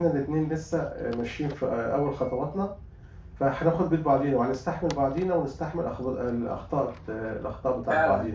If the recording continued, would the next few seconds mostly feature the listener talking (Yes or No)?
Yes